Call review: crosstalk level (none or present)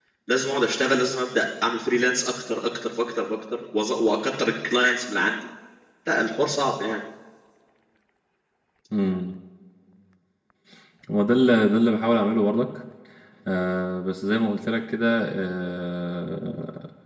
none